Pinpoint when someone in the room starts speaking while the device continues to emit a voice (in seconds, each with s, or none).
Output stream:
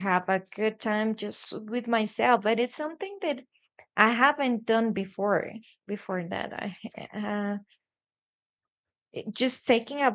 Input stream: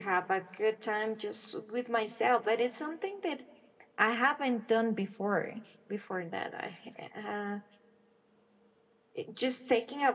none